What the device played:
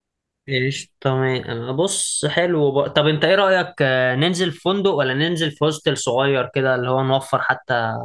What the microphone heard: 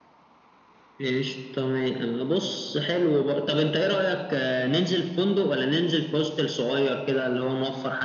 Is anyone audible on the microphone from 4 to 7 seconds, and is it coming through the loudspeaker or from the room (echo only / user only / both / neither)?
echo only